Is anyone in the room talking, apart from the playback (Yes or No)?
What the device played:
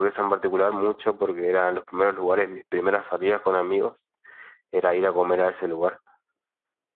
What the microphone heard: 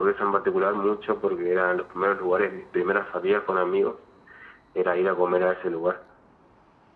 No